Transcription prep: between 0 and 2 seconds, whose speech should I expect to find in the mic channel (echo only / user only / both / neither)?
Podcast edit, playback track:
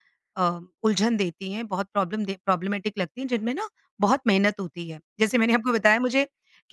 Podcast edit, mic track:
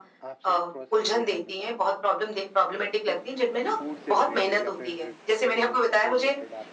both